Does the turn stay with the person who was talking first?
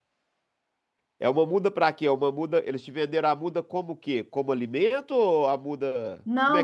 No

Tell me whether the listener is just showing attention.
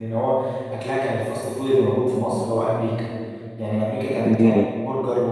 Yes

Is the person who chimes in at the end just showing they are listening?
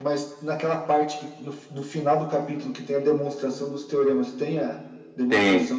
No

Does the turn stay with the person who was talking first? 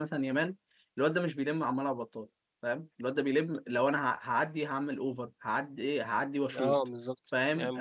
No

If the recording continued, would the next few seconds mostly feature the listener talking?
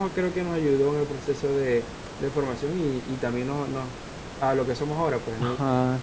Yes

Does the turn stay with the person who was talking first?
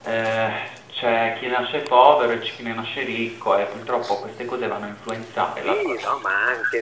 No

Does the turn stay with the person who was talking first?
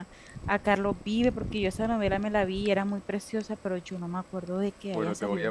No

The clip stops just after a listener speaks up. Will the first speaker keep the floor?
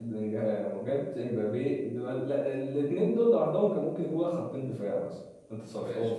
No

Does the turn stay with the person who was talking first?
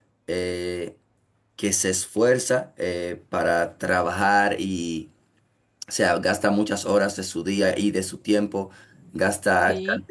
Yes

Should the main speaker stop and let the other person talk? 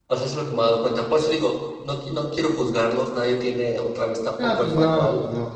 Yes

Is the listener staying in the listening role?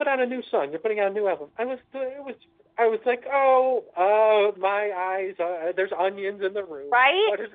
No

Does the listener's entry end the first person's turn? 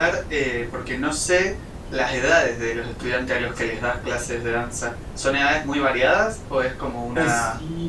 Yes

